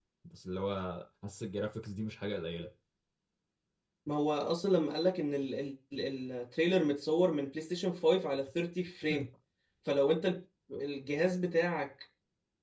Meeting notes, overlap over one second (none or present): none